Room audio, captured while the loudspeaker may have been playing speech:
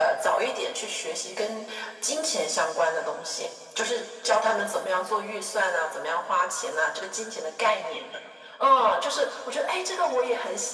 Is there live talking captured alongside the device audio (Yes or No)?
No